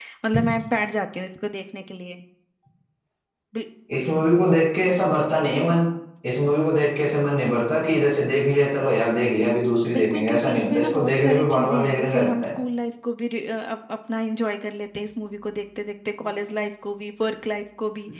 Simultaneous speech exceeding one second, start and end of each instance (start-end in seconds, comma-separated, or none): 9.9-12.5